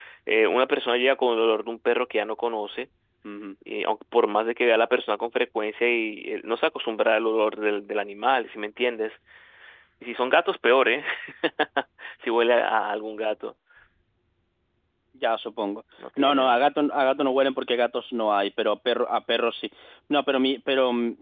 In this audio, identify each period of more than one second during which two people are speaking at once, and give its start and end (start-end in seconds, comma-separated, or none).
none